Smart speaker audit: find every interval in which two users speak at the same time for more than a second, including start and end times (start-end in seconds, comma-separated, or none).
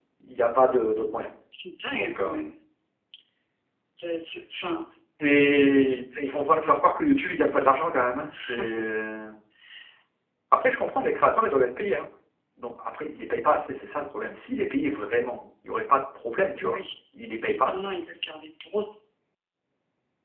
none